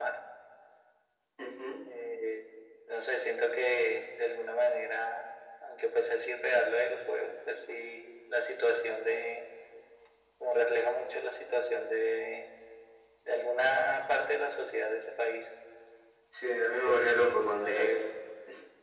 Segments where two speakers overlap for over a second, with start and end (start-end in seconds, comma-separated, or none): 16.7-17.9